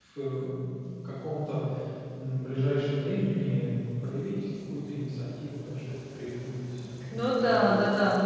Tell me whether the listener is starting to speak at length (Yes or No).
Yes